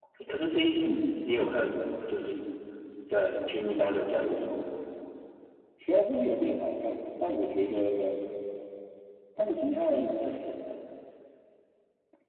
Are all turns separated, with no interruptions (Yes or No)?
Yes